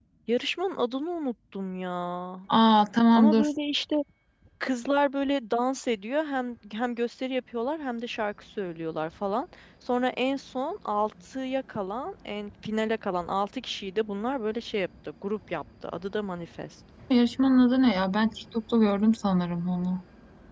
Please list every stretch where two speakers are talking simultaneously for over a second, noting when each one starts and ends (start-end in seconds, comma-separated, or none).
none